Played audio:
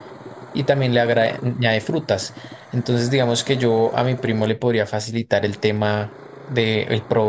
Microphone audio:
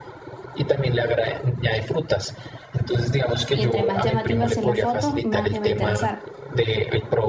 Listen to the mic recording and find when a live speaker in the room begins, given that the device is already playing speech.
4 s

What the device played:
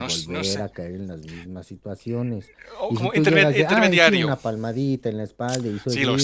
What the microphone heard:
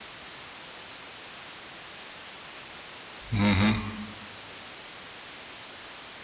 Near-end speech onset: 3 s

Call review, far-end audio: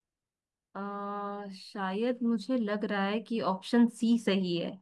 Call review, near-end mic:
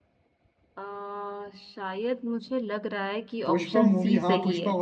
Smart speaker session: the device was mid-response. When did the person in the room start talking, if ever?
3 s

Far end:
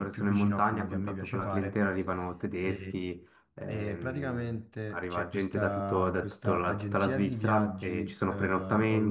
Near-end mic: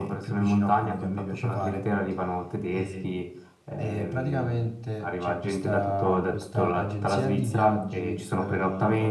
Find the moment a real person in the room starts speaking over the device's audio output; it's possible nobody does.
none

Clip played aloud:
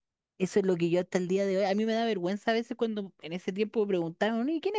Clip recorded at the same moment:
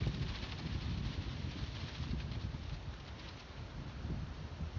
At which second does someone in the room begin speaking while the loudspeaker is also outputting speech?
none

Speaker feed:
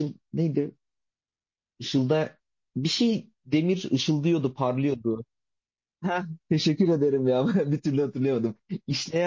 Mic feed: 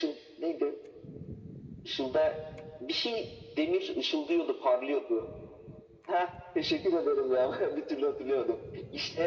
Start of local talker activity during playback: none

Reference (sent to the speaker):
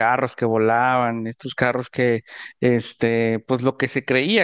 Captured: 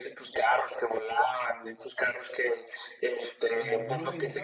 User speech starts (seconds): 3 s

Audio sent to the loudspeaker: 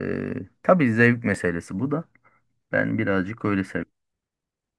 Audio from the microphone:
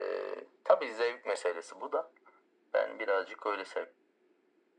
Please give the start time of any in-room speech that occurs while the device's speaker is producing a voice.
none

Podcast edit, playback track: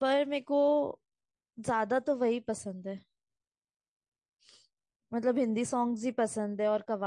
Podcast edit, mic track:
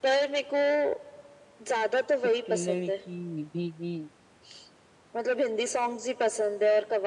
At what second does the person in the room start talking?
2 s

